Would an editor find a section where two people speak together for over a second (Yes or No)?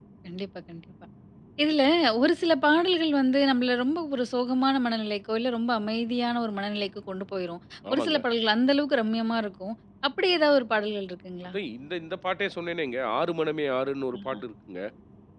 No